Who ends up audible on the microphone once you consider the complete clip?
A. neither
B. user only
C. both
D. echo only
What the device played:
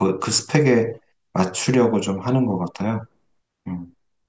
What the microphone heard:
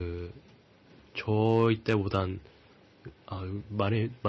B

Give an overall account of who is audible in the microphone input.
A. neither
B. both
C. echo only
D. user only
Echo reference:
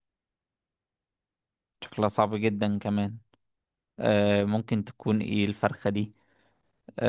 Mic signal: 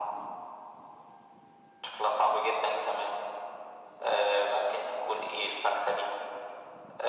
C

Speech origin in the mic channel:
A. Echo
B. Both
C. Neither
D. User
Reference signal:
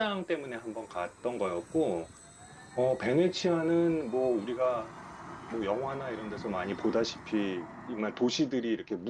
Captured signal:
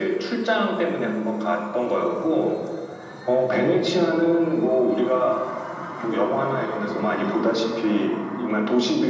B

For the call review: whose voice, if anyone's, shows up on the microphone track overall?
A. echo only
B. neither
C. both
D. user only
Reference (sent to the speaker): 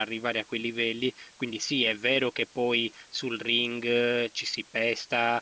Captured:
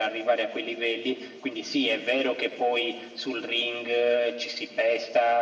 A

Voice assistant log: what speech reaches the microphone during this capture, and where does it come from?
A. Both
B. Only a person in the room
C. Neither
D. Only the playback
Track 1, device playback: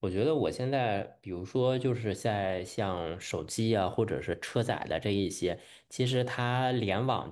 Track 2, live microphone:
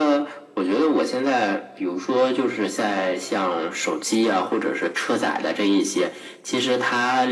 D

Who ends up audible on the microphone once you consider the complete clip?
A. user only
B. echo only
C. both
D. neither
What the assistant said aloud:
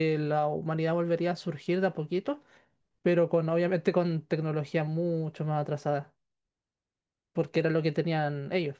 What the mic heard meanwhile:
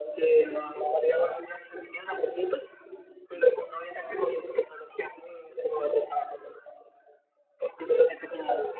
B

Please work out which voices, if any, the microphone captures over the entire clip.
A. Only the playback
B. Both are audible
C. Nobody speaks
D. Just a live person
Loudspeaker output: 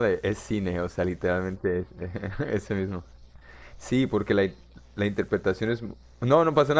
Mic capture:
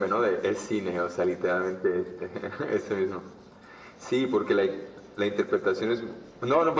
A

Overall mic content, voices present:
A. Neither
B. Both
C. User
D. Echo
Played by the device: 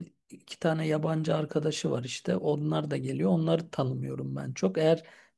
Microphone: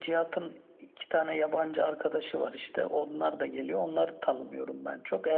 D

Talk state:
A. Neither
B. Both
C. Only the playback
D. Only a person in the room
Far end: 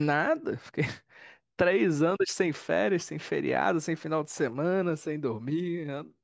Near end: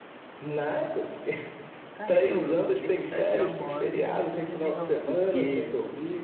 B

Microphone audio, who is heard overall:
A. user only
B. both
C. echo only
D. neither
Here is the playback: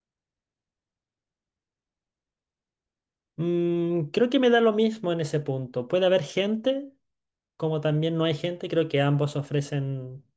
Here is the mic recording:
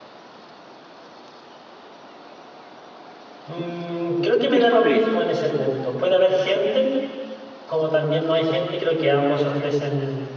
B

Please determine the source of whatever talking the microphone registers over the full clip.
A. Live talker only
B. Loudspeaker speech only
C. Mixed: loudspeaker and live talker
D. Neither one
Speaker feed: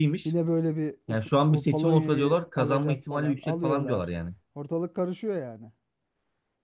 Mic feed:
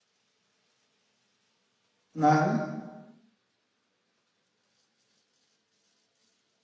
A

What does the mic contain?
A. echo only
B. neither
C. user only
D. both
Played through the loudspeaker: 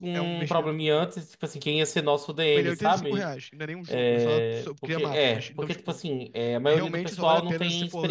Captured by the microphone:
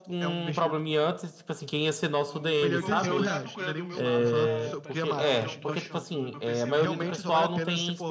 D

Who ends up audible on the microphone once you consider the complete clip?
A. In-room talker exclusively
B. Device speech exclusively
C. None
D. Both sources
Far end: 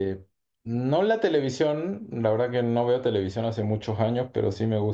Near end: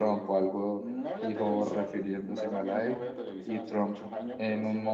D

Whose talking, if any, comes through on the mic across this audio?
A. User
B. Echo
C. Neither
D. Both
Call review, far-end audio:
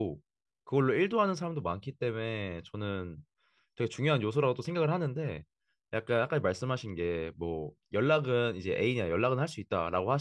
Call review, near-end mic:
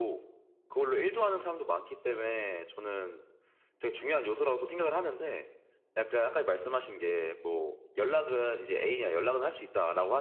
B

